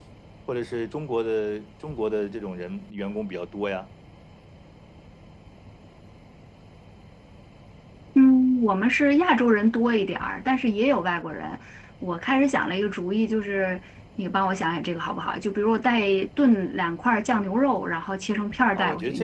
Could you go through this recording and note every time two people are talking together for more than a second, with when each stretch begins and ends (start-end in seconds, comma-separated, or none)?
none